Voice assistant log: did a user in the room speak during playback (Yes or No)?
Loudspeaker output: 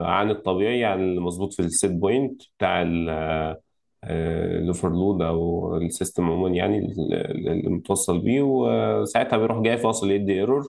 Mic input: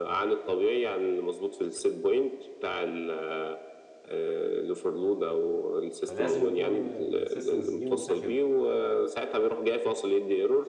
Yes